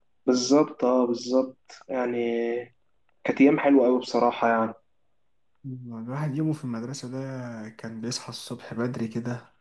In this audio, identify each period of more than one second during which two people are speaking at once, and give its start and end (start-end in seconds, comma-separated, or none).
none